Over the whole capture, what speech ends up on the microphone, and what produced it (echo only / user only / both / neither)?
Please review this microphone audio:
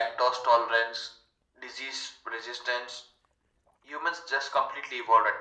echo only